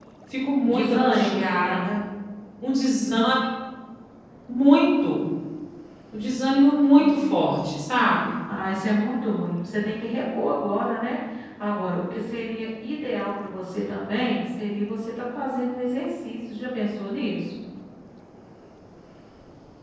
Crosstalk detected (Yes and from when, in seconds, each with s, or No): Yes, from 0.7 s